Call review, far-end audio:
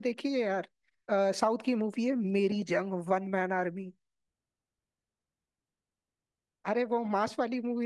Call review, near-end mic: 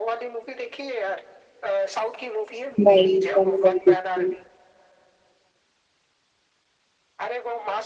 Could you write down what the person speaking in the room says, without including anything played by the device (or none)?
नहीं मैंने नहीं देखी